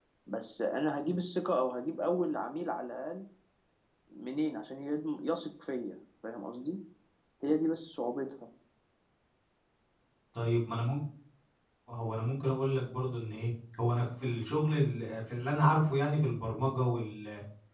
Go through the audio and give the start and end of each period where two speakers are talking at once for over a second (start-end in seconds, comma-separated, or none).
none